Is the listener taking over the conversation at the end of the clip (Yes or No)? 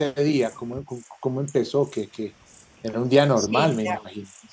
Yes